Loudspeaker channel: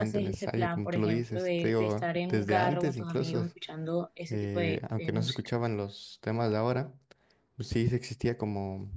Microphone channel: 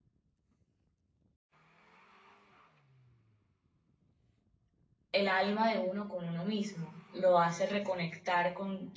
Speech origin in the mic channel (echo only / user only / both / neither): user only